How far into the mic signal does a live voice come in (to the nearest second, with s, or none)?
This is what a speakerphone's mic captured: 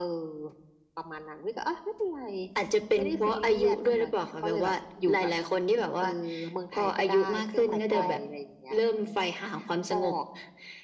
8 s